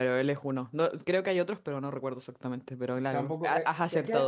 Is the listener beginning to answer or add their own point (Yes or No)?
Yes